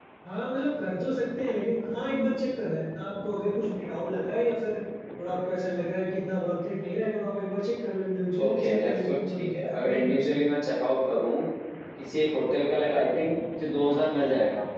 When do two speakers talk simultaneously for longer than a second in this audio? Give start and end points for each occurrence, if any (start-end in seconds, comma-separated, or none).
8.4-10.4